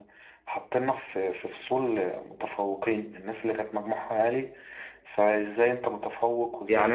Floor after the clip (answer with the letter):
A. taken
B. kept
A